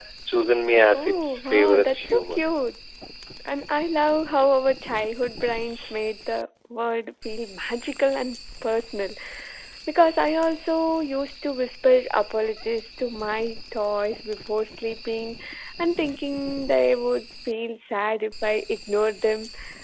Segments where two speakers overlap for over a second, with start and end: 0.9-2.4

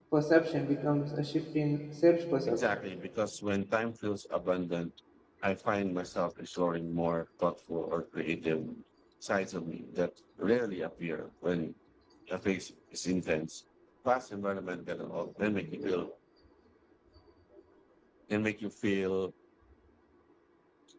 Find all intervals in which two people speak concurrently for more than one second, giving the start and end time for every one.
none

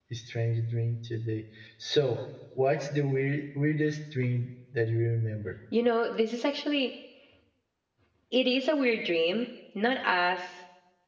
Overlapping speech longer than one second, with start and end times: none

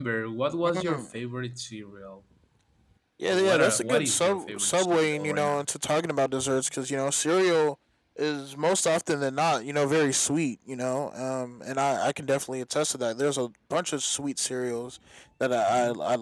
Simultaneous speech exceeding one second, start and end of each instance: 3.3-5.7

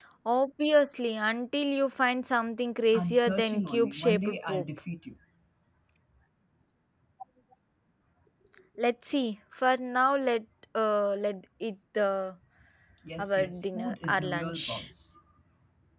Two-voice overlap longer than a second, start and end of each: 2.9-4.7, 13.2-14.9

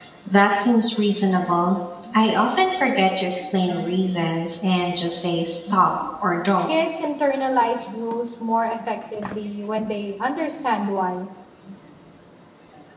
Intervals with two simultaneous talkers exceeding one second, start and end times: none

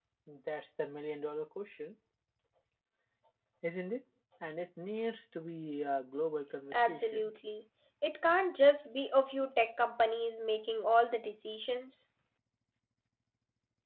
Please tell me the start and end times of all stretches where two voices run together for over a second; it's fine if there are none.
none

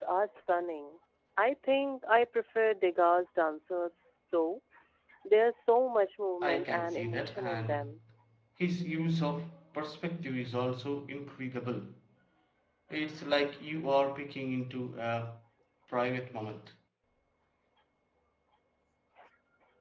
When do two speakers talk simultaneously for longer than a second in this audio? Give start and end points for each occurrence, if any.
6.4-7.9

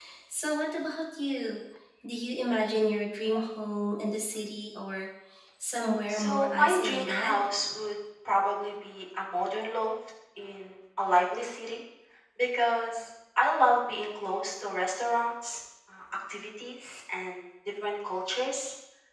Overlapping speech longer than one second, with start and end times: 6.1-7.4

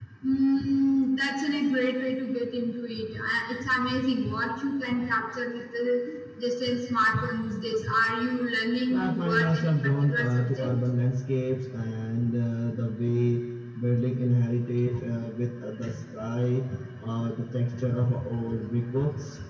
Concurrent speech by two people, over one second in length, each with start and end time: 8.9-10.7

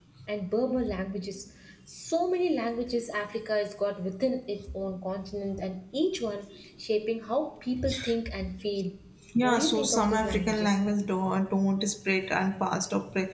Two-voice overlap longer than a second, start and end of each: 9.4-10.8

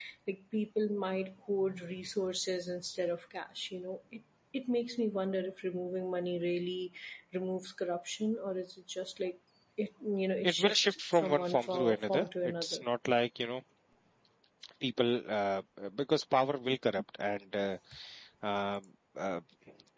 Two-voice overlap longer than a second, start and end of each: 10.4-12.8

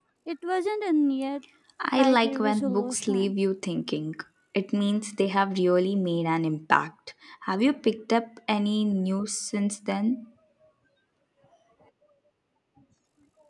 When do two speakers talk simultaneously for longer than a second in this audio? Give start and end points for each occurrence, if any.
2.0-3.3

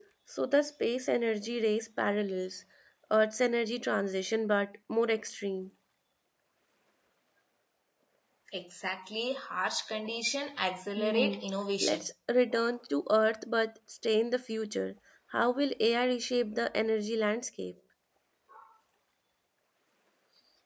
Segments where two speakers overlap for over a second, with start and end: none

